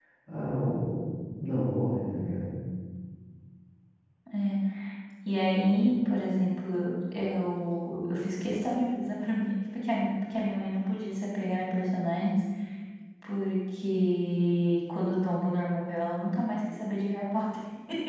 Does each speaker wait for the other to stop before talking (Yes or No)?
Yes